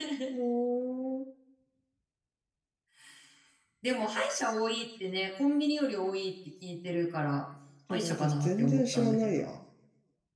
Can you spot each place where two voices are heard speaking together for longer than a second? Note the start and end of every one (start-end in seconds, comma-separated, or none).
7.9-9.4